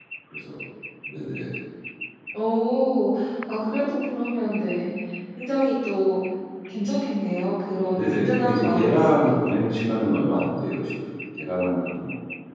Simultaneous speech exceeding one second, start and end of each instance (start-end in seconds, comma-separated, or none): 7.9-9.6